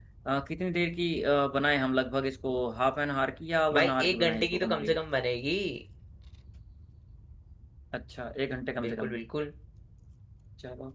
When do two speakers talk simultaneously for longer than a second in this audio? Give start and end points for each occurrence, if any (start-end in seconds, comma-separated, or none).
3.8-5.0